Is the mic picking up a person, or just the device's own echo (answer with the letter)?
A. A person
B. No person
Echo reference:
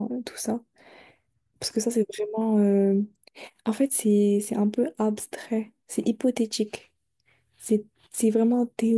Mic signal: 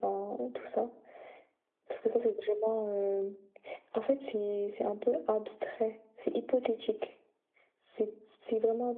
B